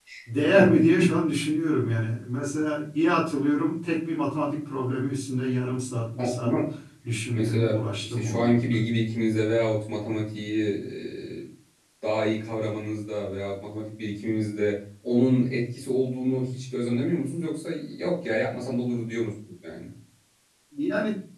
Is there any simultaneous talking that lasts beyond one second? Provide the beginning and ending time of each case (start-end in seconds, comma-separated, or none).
7.3-8.8